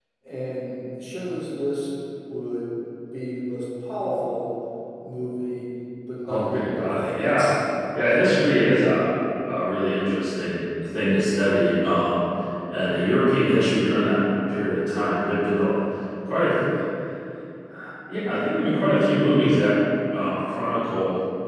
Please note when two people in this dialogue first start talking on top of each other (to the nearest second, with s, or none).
6 s